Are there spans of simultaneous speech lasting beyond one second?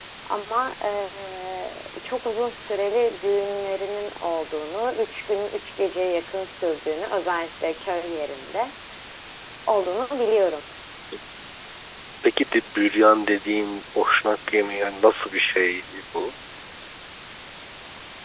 No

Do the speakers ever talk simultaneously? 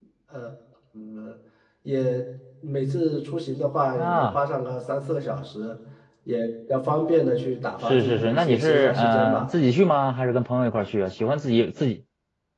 Yes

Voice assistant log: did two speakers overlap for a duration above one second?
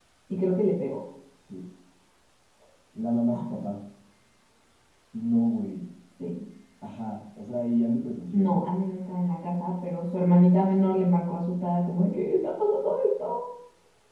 No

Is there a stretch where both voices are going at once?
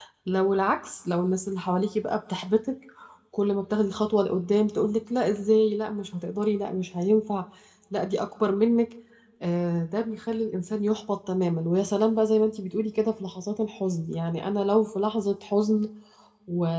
No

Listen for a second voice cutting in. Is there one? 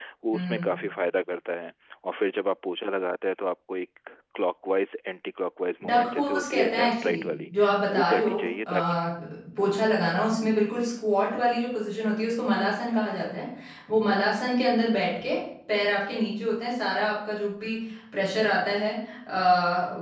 Yes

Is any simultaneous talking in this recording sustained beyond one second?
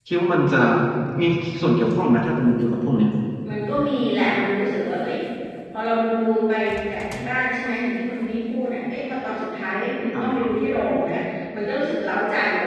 No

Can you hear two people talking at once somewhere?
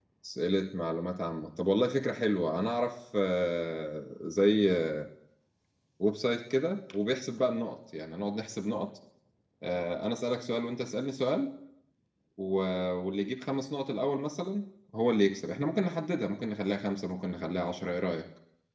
No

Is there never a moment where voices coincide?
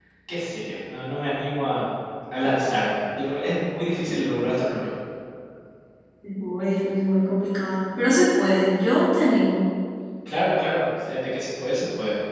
Yes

